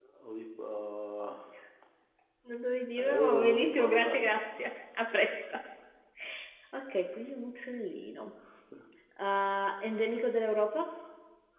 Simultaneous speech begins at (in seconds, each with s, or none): 3.0 s